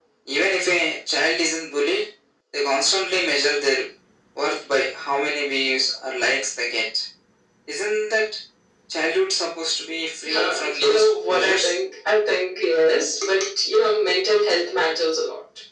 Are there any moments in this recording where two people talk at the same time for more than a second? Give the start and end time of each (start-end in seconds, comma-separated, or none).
10.3-11.7